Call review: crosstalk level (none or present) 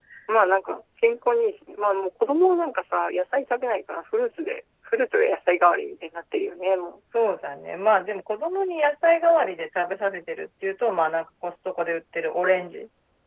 none